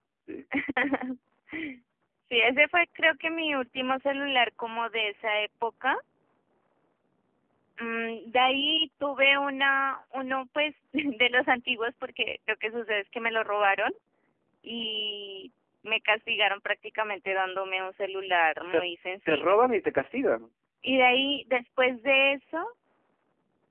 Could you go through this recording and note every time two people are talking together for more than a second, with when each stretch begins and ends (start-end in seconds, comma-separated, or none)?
none